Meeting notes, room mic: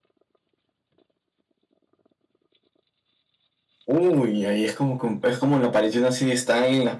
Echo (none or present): none